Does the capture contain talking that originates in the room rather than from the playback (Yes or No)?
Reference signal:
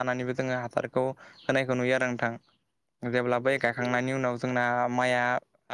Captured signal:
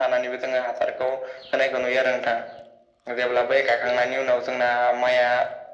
No